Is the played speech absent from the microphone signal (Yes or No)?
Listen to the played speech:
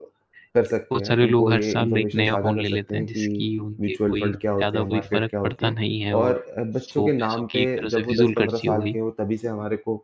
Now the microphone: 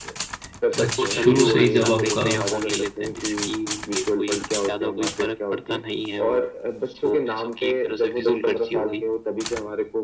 No